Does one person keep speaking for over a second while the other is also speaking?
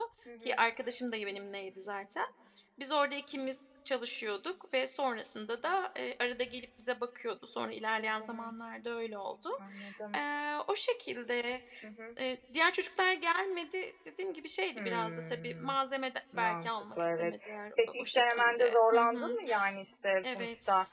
Yes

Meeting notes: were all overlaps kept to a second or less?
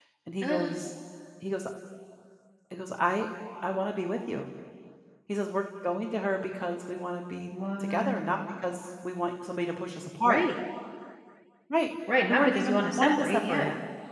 No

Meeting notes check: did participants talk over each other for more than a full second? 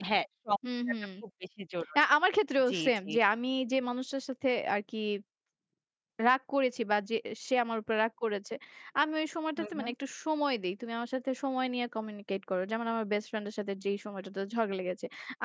No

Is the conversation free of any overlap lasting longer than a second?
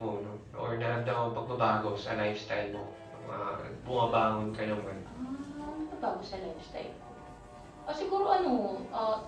Yes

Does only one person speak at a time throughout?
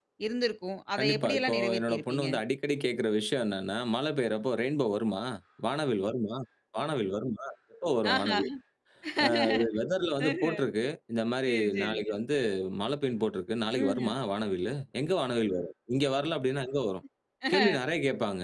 No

